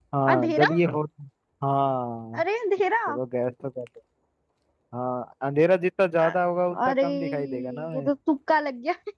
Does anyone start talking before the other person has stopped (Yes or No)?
Yes